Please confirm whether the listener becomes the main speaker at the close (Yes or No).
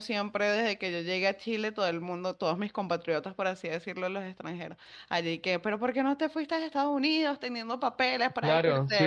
Yes